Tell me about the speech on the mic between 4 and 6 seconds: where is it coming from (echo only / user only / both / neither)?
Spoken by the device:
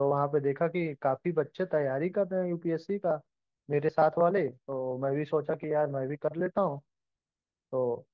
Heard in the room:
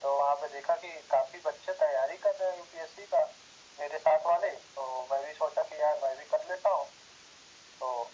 echo only